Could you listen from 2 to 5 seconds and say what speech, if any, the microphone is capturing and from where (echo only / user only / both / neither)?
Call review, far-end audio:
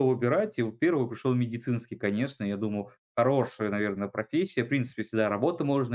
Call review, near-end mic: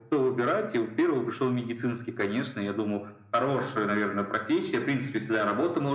echo only